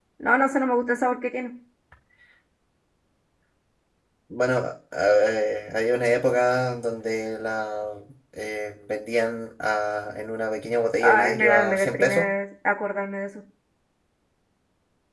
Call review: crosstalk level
present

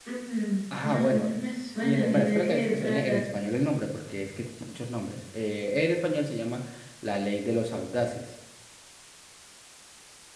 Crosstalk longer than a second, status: present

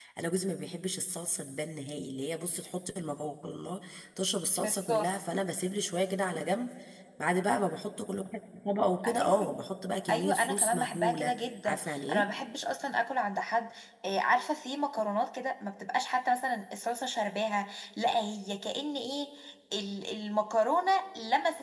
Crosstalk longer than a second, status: present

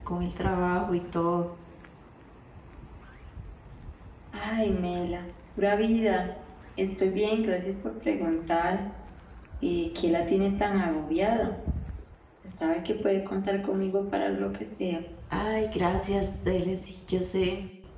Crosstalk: none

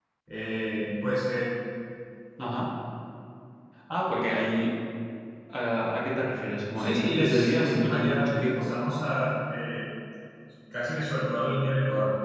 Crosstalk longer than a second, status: present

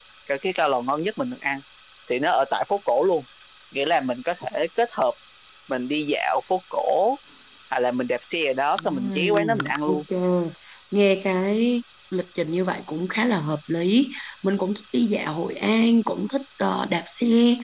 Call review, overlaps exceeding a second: present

